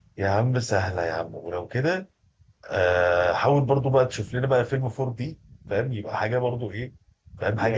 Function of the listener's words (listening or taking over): taking over